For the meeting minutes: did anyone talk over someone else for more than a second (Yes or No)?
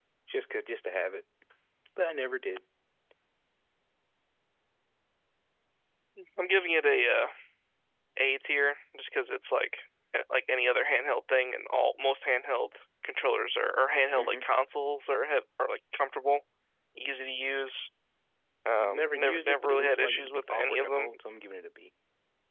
Yes